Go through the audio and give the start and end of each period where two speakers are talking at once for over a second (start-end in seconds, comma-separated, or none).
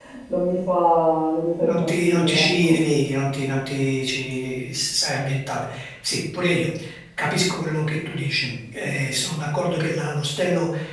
1.6-2.8